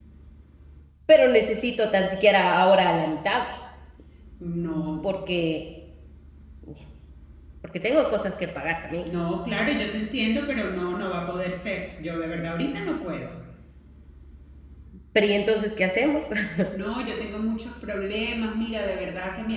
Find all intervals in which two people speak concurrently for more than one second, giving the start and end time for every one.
none

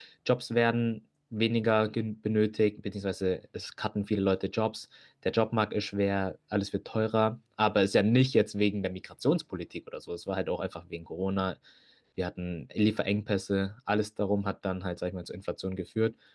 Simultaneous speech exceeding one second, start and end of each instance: none

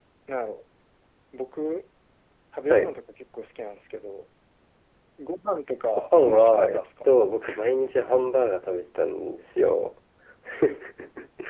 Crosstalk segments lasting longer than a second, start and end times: 5.9-7.1

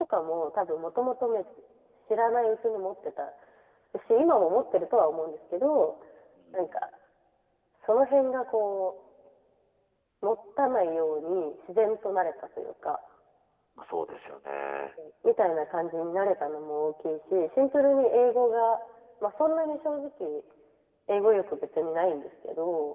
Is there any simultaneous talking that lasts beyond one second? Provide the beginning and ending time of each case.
none

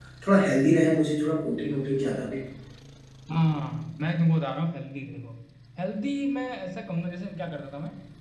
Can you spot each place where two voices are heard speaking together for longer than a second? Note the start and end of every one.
none

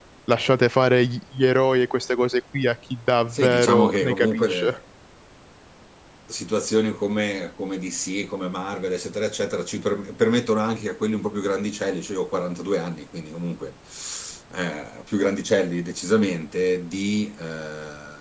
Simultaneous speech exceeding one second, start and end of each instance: 3.3-4.8

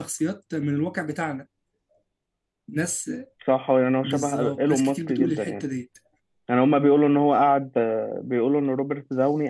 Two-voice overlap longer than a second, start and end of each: 4.0-5.6

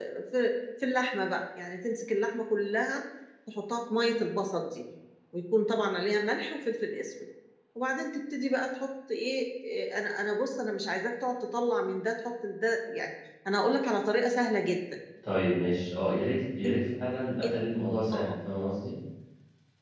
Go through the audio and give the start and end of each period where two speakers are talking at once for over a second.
none

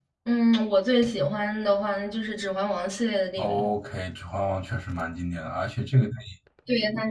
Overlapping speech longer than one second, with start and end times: none

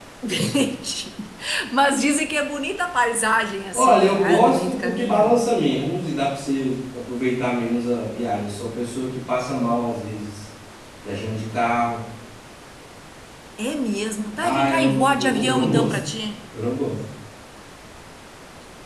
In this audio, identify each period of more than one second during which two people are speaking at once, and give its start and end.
3.7-5.4, 14.4-16.0

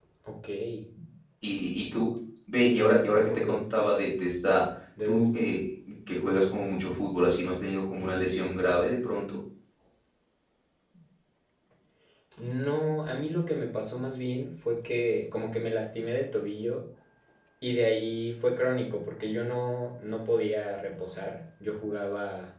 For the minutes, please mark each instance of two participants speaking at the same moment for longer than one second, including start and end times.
2.5-3.8

